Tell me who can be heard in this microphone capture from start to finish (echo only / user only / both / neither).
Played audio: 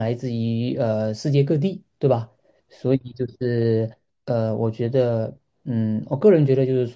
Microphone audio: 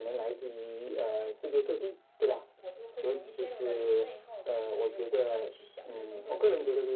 both